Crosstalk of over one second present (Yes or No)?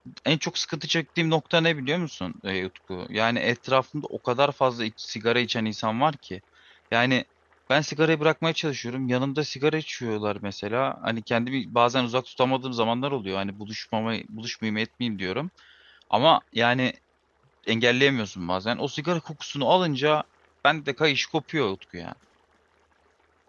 No